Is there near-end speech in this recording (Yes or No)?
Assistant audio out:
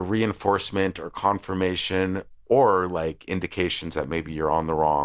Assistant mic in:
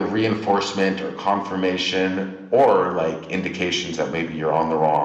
No